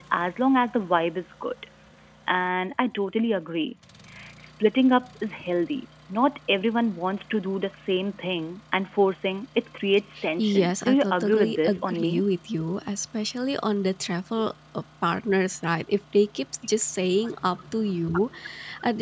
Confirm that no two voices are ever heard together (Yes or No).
No